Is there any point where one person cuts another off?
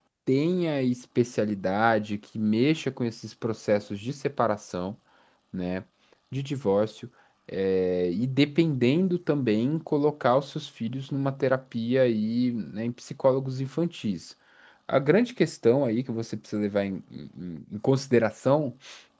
No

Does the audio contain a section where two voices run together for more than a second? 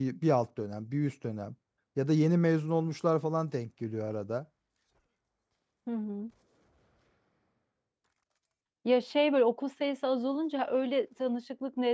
No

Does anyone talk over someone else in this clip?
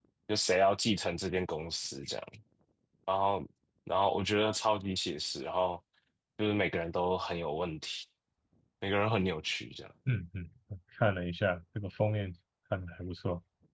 No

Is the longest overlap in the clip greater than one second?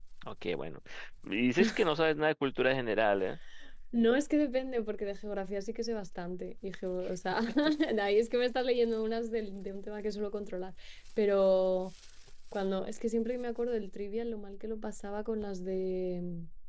No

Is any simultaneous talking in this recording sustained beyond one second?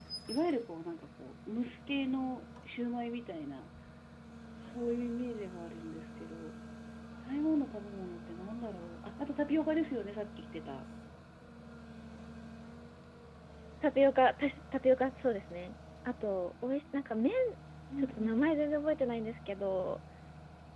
No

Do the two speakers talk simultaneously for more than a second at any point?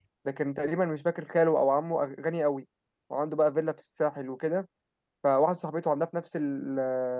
No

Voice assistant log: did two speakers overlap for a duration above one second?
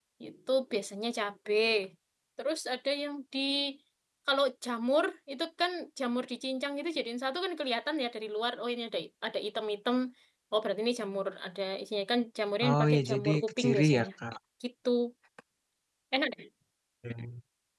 Yes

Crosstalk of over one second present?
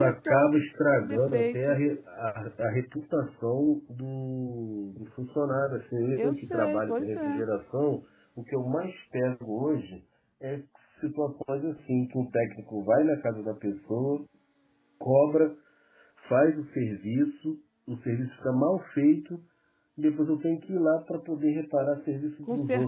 Yes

